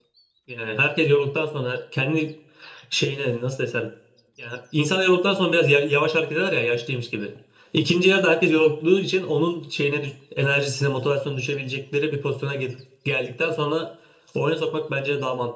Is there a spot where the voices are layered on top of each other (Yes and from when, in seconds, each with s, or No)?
No